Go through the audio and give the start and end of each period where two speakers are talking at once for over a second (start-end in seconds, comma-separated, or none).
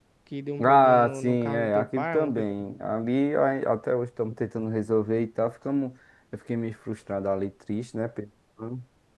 0.6-2.5